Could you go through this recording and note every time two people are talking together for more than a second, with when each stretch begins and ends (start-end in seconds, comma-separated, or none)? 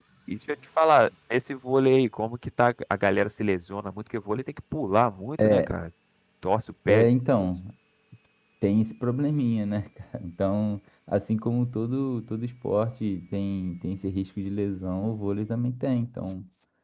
none